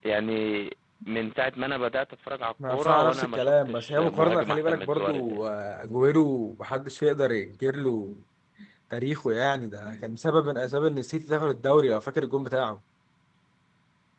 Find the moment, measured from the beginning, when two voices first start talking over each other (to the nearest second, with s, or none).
3 s